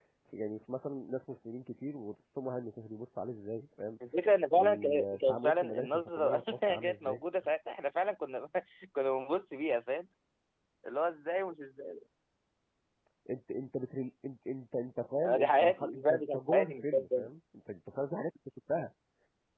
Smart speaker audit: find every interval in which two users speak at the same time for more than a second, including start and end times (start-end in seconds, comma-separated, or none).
4.6-7.2, 15.2-17.3